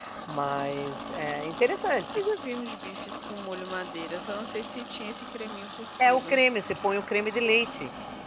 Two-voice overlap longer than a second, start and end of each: none

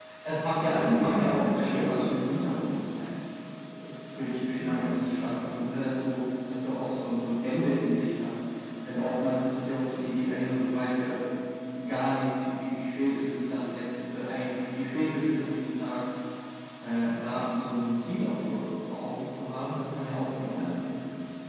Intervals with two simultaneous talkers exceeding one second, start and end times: 0.6-2.1

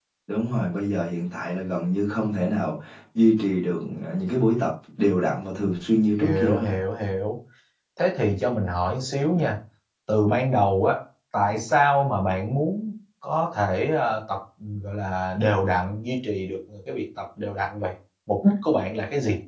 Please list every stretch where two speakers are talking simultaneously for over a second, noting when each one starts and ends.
none

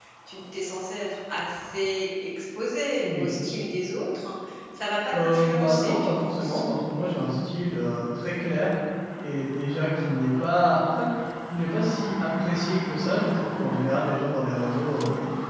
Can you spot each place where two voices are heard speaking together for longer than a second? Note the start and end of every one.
5.2-6.6

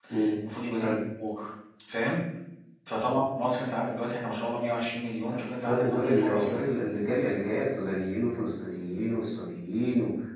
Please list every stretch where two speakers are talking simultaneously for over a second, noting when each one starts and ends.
5.3-6.6

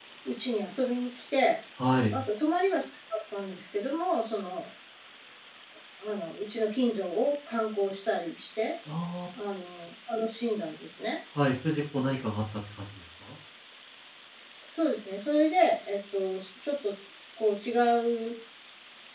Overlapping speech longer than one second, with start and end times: none

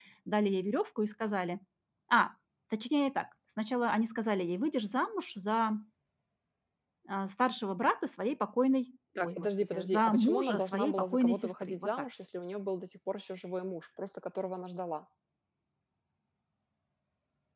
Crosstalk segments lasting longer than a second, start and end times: 9.2-12.0

